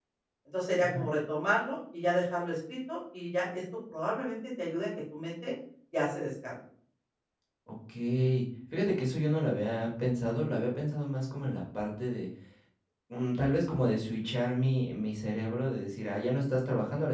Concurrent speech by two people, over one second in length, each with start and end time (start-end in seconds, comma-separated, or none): none